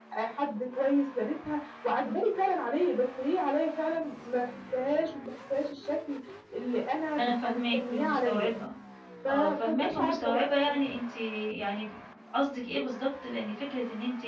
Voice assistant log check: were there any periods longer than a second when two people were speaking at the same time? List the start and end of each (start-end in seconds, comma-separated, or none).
7.2-8.5, 9.3-11.0